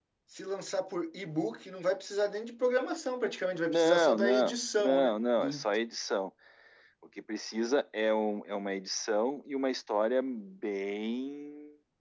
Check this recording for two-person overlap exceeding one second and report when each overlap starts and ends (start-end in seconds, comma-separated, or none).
3.7-5.7